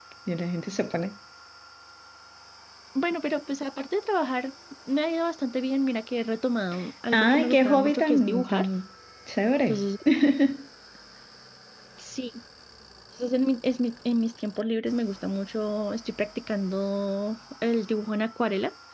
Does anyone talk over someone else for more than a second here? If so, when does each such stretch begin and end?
7.1-8.7

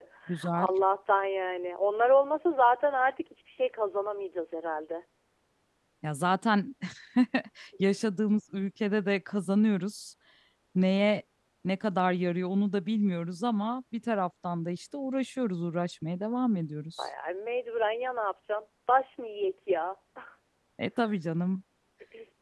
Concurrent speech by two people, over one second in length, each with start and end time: none

